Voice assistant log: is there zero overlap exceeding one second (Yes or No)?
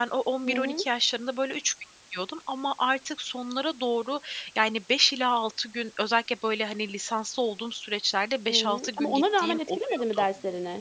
No